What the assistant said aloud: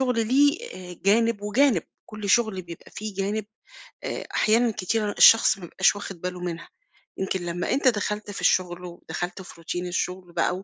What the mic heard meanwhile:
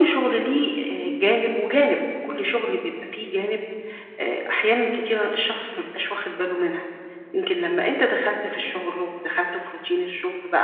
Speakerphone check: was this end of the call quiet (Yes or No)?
Yes